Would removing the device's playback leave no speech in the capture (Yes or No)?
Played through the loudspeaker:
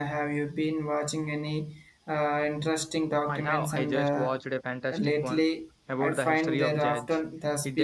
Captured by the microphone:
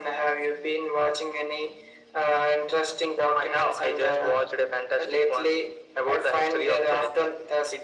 Yes